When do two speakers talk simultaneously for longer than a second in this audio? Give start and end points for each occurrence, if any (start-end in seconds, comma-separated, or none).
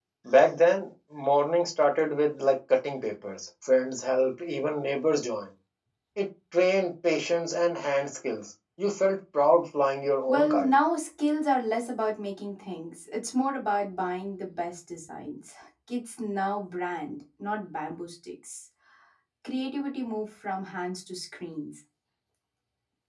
none